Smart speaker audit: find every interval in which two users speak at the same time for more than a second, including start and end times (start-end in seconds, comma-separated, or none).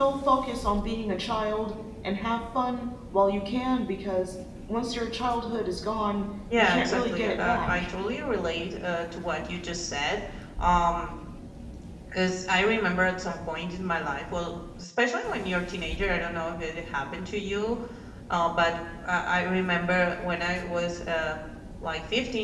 6.6-7.9